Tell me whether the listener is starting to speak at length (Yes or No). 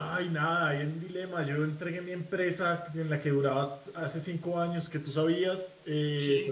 No